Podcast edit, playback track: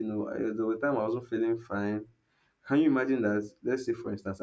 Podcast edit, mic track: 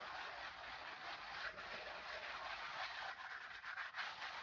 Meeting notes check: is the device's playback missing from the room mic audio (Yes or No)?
Yes